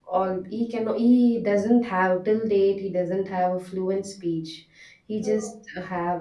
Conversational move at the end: listening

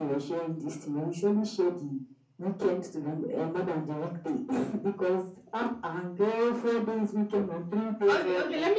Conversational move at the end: taking over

